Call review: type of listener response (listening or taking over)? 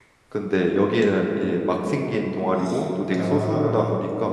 listening